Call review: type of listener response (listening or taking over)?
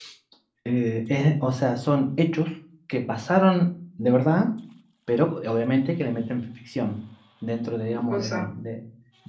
listening